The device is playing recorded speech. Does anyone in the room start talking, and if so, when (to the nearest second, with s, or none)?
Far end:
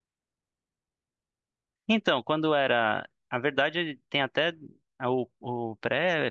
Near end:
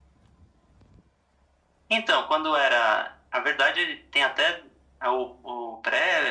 none